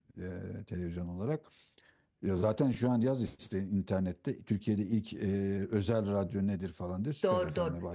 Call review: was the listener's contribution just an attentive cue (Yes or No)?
No